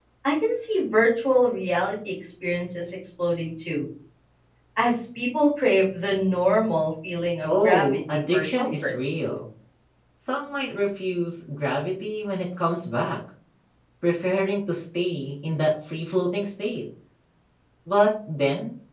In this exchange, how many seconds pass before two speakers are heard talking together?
7.4 s

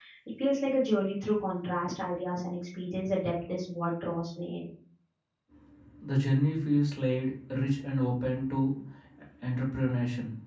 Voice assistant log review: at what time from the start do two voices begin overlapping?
none

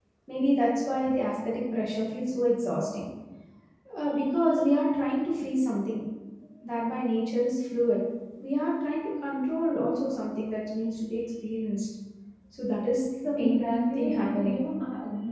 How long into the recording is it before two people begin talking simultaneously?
13.4 s

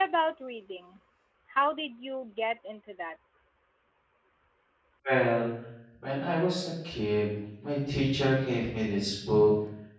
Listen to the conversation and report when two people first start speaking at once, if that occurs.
none

